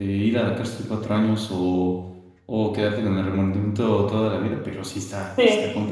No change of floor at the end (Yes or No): No